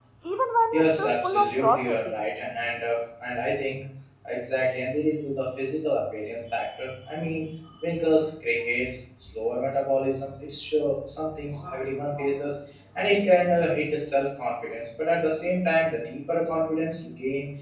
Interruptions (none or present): present